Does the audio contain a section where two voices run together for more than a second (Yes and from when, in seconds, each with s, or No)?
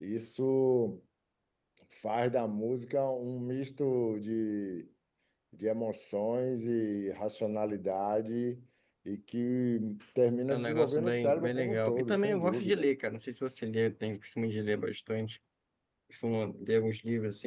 Yes, from 10.5 s